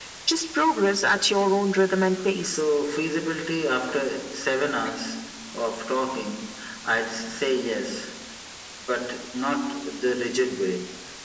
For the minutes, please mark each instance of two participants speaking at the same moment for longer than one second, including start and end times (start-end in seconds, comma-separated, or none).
none